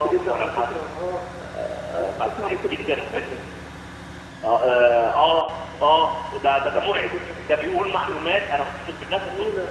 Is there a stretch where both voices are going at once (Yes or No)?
Yes